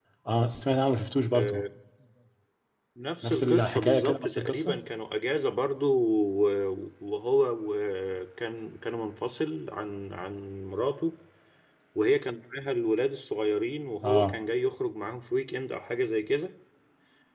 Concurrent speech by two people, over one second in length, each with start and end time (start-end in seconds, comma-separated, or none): 3.2-4.8